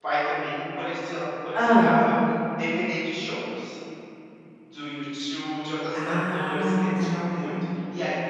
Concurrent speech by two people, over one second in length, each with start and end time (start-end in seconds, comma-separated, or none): 5.9-7.2